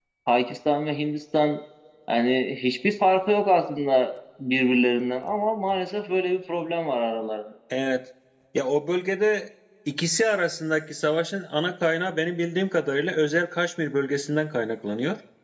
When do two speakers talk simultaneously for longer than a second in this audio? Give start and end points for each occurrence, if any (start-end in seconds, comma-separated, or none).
none